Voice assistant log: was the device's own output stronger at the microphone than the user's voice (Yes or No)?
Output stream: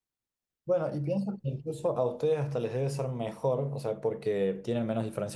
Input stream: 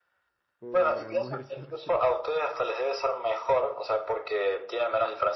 Yes